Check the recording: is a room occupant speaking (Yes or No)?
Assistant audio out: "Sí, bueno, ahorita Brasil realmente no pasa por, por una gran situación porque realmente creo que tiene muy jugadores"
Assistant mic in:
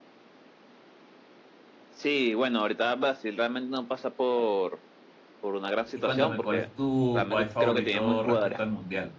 Yes